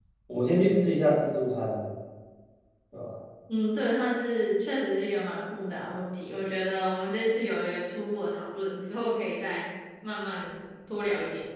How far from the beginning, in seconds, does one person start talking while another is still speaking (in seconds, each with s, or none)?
none